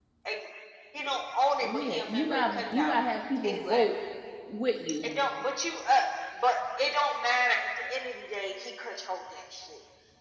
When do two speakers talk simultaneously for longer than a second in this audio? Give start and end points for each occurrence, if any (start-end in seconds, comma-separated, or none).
1.6-2.9